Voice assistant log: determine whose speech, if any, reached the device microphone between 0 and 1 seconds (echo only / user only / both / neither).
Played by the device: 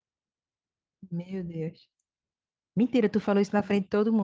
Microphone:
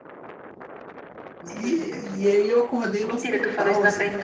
neither